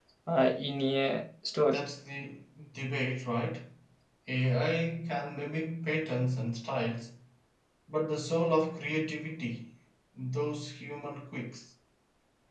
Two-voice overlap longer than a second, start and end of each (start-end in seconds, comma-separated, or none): none